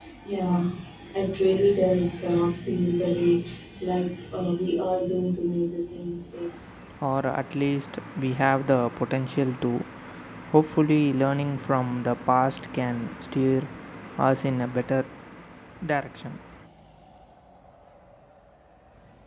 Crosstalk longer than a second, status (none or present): none